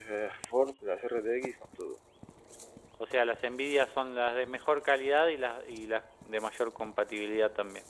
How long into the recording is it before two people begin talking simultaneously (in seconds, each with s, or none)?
none